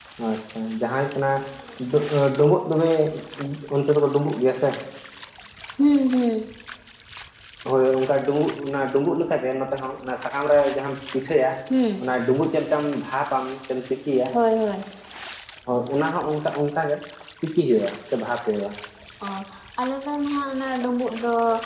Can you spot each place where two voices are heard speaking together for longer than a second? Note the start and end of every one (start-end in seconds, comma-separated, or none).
none